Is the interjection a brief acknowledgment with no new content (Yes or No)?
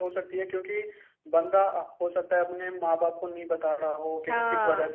Yes